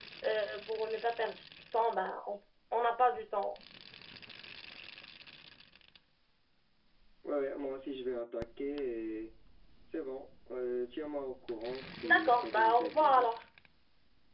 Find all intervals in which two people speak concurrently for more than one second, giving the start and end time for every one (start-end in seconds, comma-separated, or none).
12.0-13.4